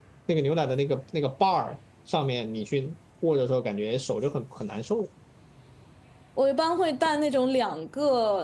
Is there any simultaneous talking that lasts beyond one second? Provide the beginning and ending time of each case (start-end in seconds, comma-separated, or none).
none